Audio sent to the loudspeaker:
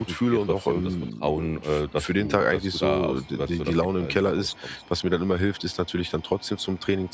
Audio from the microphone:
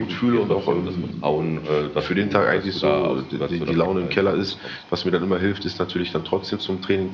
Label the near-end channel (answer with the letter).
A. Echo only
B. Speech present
A